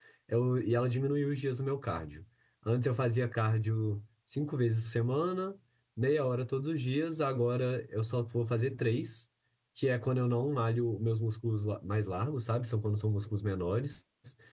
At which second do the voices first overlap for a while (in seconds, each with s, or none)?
none